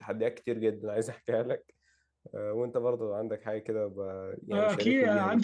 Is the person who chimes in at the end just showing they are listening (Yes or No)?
No